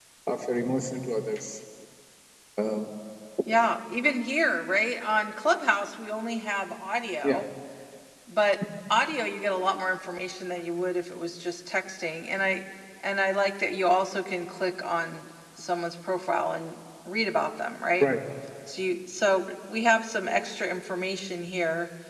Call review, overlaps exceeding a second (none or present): none